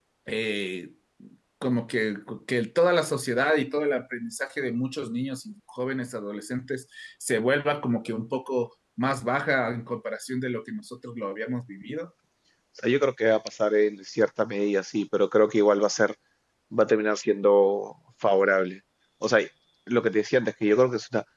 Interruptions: none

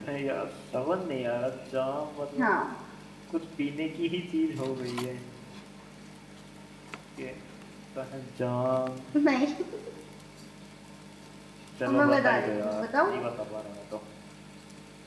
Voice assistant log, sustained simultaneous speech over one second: present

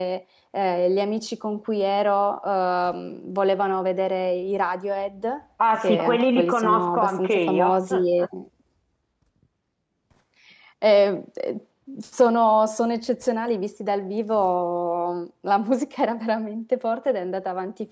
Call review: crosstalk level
present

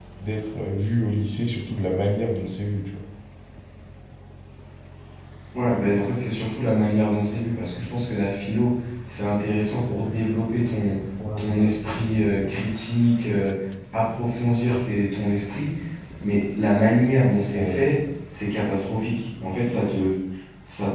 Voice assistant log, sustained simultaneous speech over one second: none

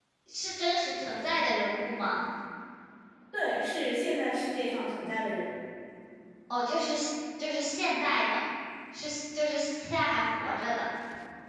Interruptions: none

